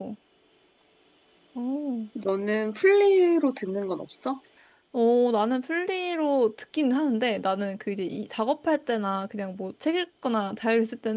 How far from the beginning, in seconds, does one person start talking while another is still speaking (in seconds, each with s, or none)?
none